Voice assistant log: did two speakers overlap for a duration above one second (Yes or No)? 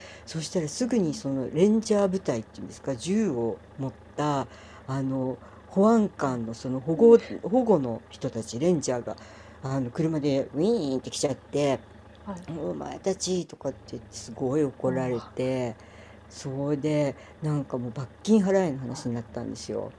No